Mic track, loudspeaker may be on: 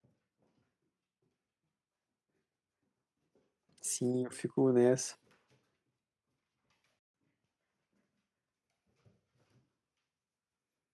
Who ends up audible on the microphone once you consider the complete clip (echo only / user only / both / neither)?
user only